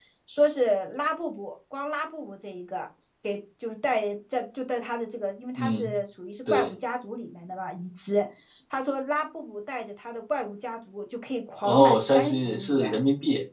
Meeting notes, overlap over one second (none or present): present